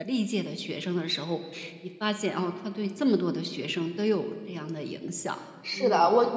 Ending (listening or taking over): taking over